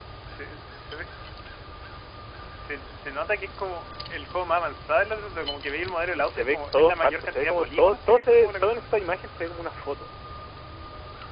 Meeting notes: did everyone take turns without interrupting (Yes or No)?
No